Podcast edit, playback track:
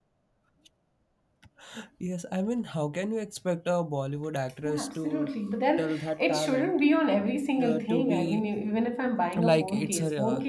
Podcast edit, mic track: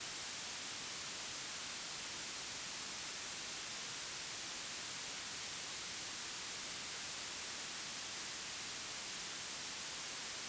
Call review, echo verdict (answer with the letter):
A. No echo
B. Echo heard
A